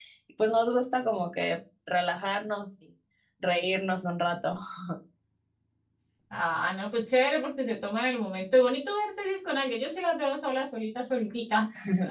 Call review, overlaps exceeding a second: none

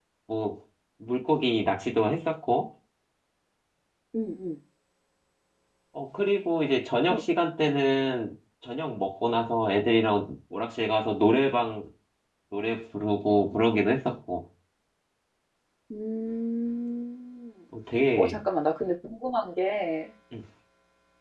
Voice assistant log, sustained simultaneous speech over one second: none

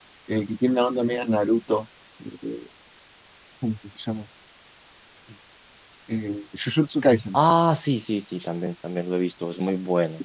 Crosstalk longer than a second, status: none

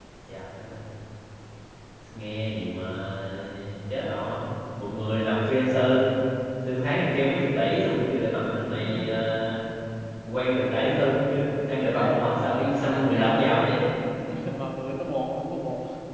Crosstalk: present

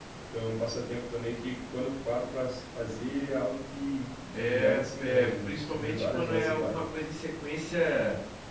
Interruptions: present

